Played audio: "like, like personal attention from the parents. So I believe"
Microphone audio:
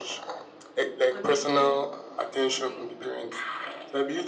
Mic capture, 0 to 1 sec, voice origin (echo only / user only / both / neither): echo only